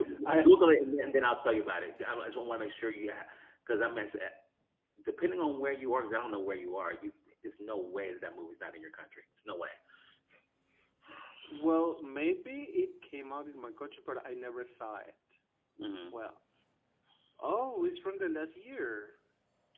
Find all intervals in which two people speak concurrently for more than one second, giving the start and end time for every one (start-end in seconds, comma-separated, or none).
none